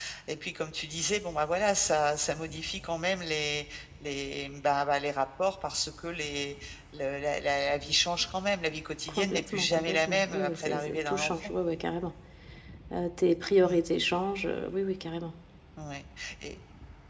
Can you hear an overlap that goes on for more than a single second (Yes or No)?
Yes